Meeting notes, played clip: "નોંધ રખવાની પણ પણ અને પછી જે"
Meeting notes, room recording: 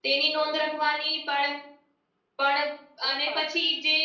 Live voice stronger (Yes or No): No